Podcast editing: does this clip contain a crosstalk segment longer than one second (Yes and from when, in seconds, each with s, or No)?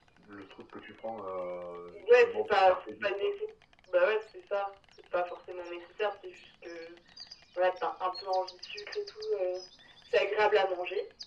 Yes, from 1.9 s